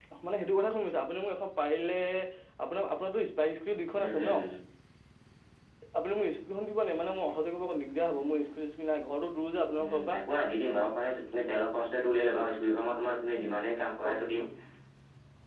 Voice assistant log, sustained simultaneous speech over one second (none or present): none